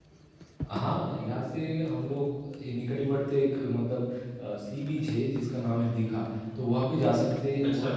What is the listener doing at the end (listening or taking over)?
listening